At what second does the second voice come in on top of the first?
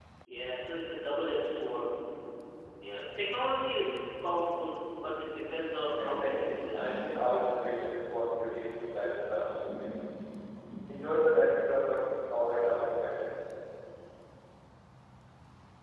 6.0 s

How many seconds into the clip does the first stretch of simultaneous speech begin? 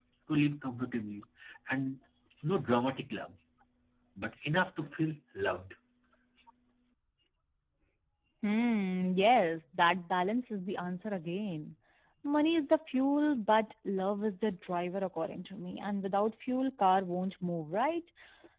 none

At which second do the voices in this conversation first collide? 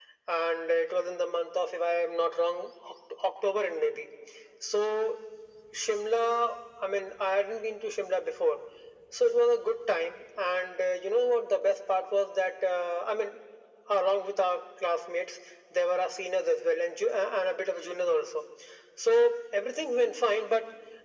none

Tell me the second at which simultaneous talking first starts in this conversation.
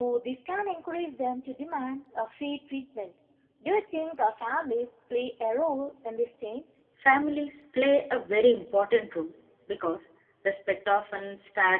none

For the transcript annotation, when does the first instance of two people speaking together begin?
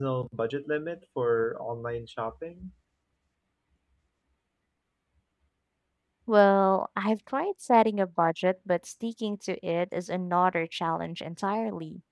none

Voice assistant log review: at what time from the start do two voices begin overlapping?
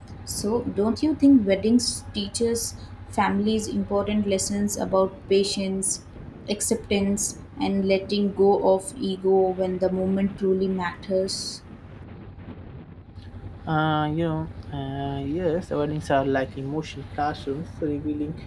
none

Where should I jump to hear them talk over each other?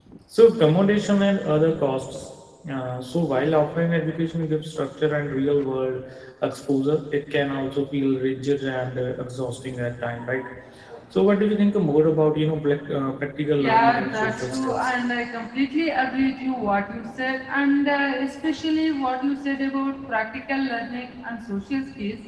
13.6 s

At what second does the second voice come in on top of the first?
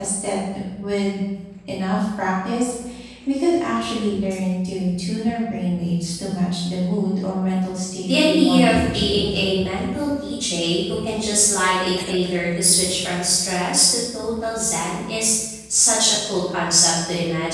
8.0 s

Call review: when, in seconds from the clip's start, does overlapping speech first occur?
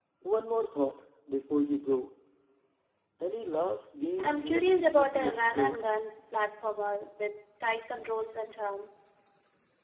4.2 s

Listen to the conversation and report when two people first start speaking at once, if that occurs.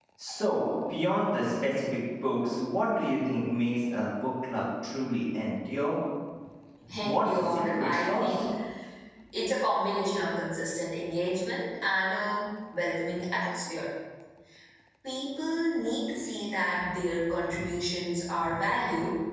7.0 s

